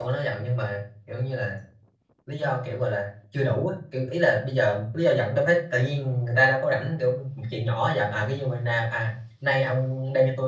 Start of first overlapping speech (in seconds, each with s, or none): none